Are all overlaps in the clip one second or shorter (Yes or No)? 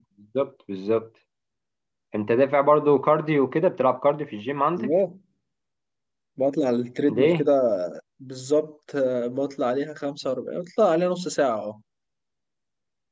Yes